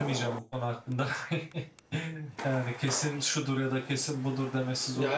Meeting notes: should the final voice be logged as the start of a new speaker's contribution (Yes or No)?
Yes